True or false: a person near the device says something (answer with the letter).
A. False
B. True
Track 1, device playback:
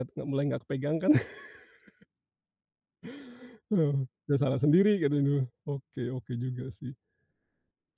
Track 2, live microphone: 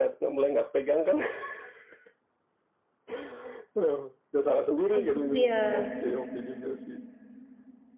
B